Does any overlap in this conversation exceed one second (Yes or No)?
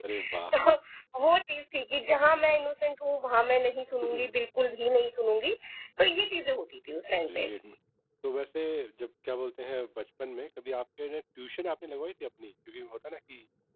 No